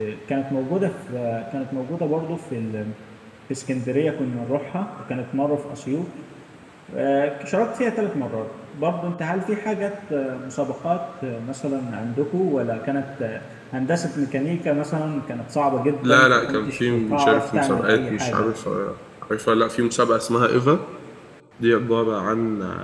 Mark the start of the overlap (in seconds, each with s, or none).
16.0 s